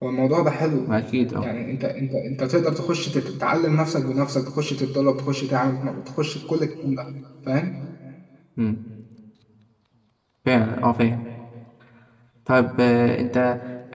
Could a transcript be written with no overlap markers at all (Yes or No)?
Yes